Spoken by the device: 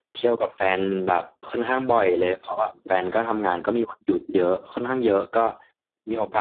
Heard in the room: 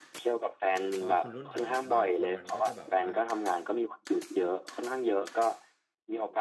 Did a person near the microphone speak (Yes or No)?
Yes